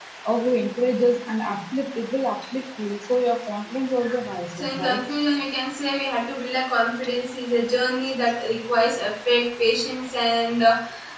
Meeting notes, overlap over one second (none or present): none